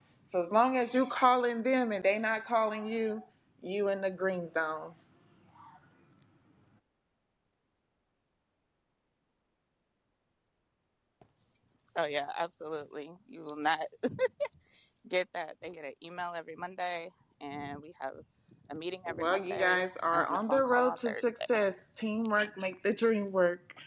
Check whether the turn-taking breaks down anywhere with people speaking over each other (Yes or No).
Yes